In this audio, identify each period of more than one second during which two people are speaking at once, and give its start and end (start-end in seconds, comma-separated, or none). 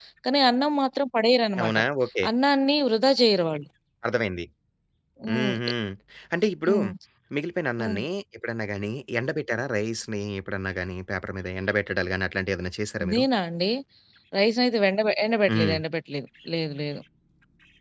none